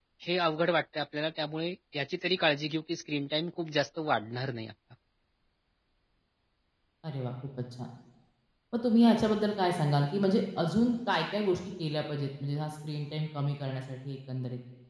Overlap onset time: none

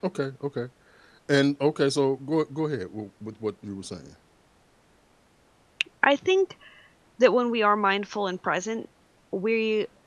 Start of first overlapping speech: none

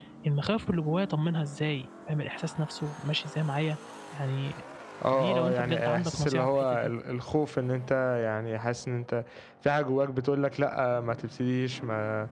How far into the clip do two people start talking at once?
5.1 s

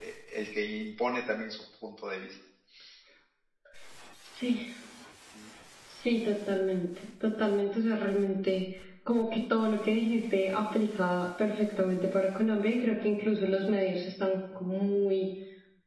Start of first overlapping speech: none

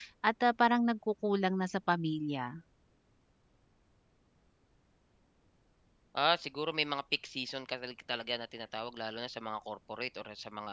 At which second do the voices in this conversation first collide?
none

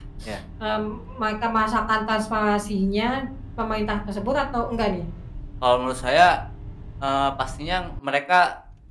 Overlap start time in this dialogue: none

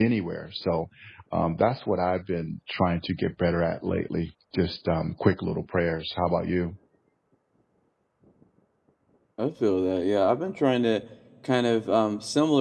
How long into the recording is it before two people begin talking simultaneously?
none

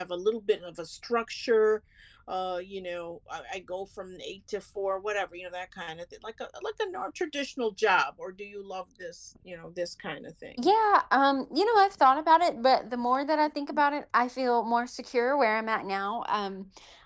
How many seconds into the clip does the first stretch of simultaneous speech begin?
none

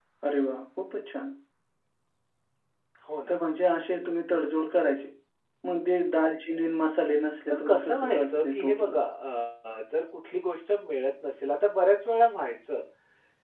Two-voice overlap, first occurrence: 7.5 s

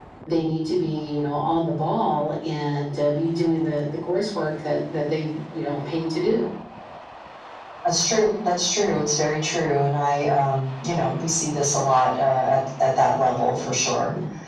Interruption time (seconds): none

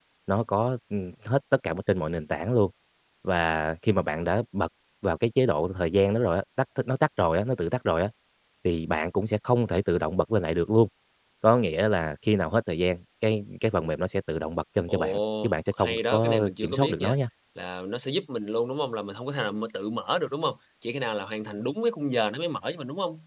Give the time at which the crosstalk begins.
14.9 s

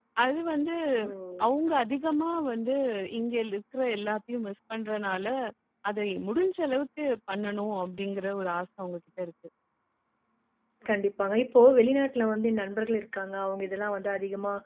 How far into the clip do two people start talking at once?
none

